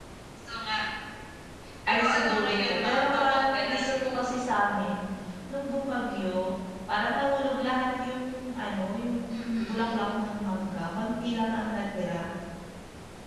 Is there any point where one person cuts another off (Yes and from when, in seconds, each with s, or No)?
Yes, from 1.9 s